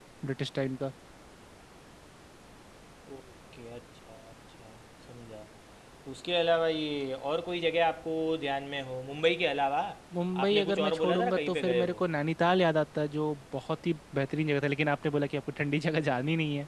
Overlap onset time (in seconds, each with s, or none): 10.5 s